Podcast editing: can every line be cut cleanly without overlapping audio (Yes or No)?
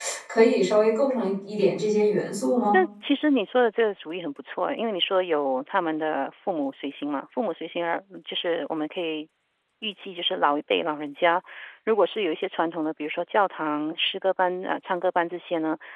Yes